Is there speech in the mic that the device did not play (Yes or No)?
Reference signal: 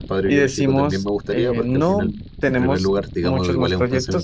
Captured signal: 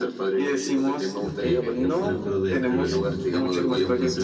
Yes